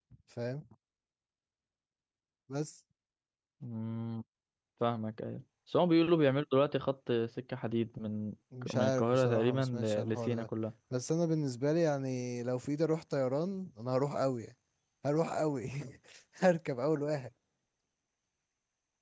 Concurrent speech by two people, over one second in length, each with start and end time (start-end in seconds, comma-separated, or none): 8.7-10.5